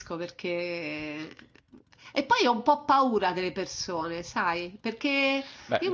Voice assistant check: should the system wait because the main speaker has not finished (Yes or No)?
Yes